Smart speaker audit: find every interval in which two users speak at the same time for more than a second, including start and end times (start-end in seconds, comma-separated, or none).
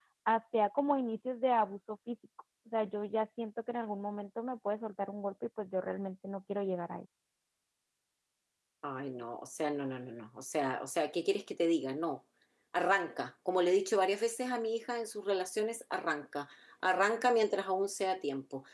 none